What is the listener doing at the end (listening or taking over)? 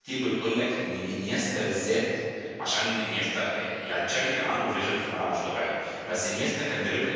listening